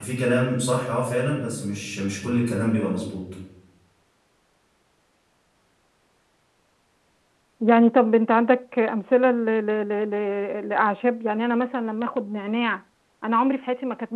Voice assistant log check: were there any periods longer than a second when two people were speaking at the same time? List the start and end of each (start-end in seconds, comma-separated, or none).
none